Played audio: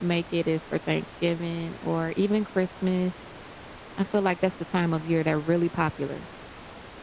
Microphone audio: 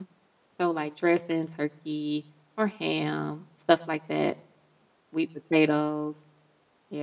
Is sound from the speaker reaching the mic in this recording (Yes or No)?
No